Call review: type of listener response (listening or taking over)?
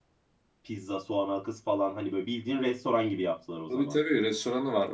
taking over